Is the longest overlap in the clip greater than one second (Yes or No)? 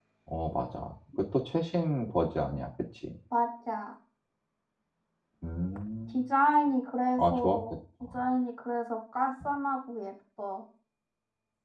No